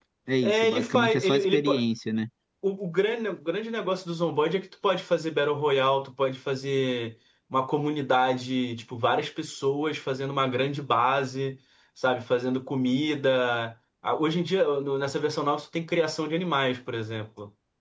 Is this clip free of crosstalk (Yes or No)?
No